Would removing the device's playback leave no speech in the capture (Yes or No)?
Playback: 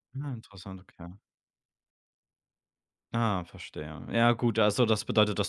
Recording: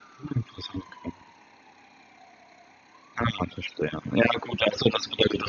Yes